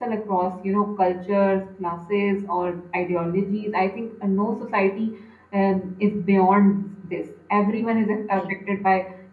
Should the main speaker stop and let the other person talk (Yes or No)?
No